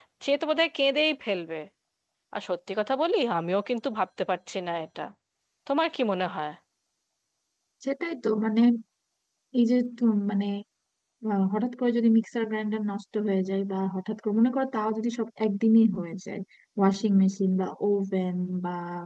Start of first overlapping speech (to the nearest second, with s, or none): none